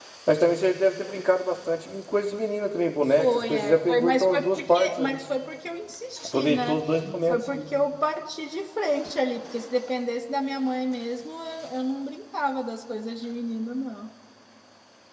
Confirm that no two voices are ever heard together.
No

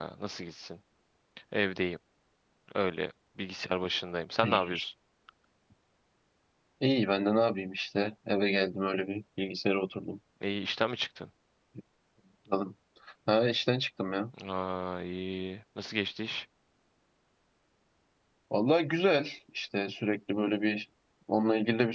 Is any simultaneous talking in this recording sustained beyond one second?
No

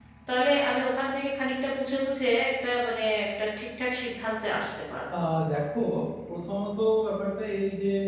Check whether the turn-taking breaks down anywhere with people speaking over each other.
No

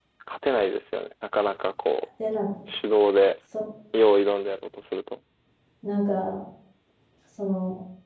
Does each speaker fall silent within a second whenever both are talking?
Yes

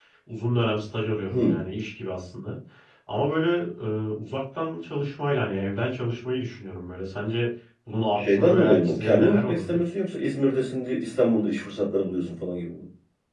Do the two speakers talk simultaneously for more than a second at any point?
Yes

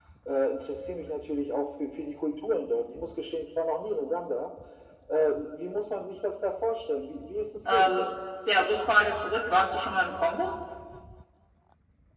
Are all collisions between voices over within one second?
Yes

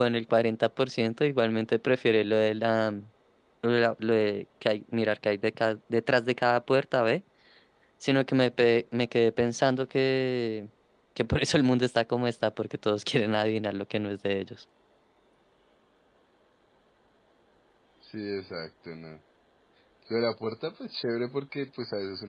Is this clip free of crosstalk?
Yes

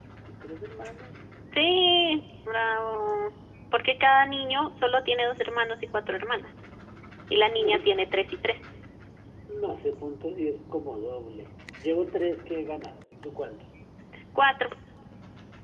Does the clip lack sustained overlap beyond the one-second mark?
Yes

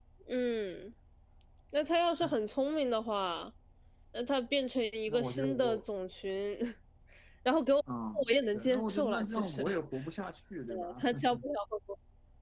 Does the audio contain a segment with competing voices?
Yes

